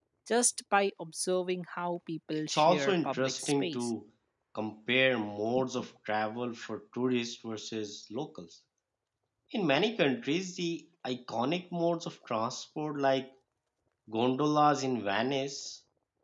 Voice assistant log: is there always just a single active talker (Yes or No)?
No